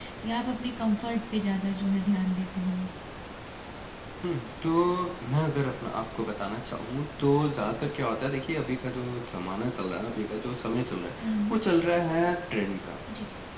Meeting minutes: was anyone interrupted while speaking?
No

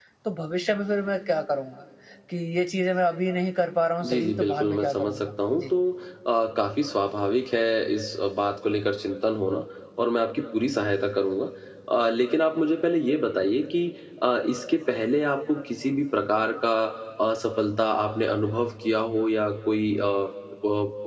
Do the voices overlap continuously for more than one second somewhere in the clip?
Yes, from 4.0 s

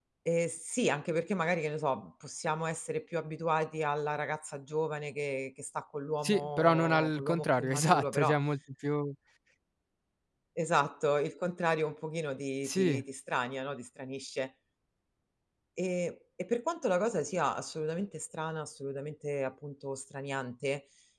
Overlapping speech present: Yes, from 6.2 s

